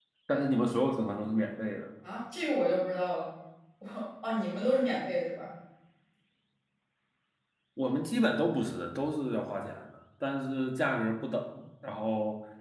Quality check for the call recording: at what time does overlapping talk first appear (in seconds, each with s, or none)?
none